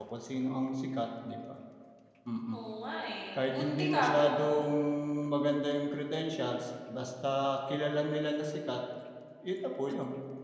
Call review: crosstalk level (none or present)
present